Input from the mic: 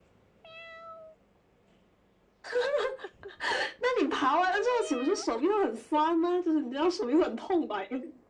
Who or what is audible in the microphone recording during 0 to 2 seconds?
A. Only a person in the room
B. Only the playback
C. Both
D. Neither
D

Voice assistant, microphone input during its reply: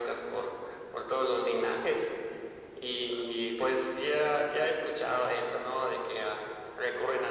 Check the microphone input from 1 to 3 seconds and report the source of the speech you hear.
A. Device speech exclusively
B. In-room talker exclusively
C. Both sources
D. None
A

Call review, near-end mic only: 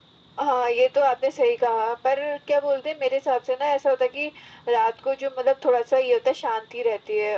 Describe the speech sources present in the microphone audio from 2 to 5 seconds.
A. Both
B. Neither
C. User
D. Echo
D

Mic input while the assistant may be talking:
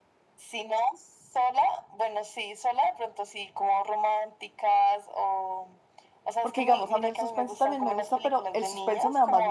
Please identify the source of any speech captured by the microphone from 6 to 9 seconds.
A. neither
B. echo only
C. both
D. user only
C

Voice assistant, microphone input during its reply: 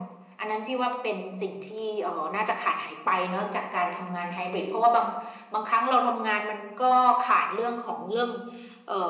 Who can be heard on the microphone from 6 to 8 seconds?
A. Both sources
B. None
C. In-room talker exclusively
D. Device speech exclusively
D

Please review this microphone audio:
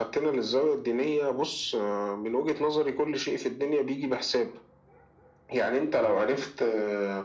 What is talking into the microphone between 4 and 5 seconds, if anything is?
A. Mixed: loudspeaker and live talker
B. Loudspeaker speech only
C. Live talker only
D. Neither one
B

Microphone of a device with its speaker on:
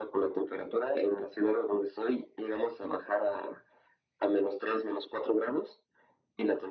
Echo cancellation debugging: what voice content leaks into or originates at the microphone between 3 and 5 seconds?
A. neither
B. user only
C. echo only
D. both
C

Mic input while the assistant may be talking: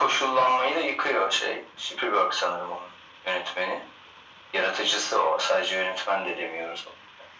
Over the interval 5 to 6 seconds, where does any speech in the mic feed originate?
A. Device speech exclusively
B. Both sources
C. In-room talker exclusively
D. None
A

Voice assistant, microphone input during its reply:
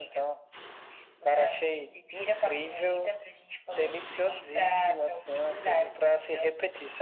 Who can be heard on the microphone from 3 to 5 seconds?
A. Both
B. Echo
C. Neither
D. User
B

